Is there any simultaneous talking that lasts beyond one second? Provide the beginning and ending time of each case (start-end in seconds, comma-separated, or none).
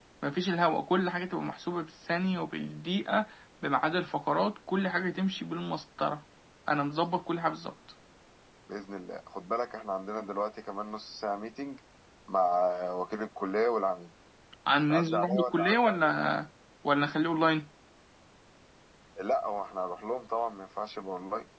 14.9-16.1